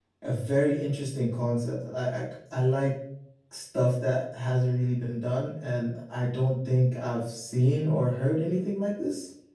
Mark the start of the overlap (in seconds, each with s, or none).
none